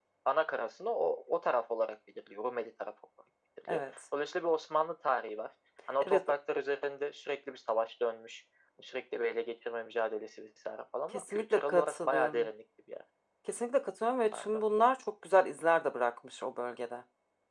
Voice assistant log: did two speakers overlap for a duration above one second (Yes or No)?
Yes